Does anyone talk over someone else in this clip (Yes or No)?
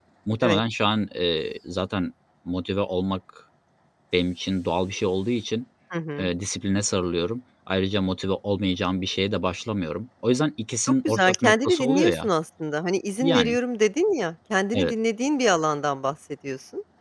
Yes